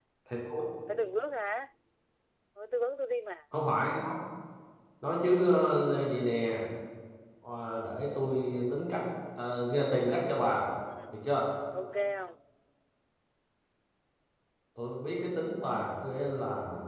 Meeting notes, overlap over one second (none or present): none